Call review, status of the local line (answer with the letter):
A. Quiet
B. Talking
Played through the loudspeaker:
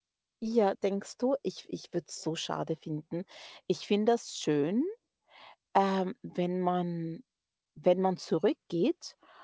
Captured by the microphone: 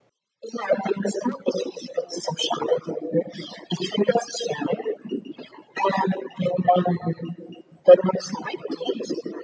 A